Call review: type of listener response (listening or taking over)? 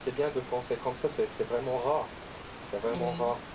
listening